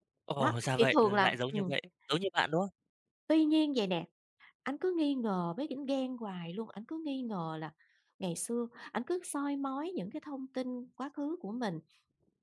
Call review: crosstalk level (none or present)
present